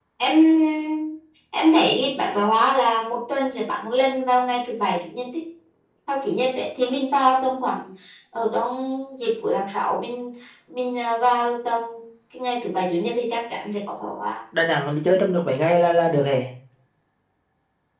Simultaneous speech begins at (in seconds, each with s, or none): none